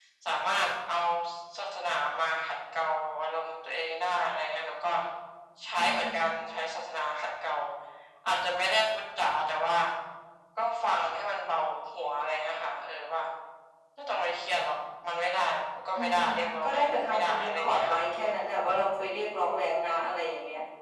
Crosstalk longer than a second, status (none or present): present